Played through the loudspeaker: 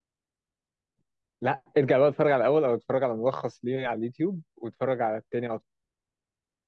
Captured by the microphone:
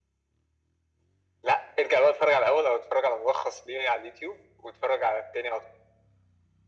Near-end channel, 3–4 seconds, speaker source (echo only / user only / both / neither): echo only